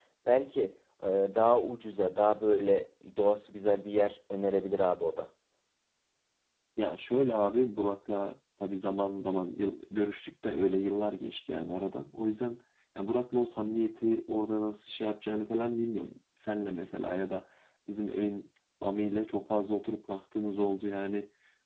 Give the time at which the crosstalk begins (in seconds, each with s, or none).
none